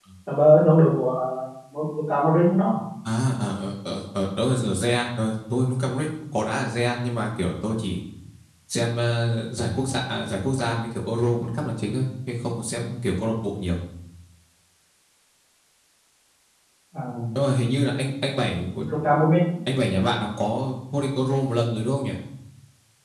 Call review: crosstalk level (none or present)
none